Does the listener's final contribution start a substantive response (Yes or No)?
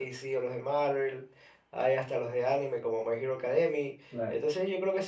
No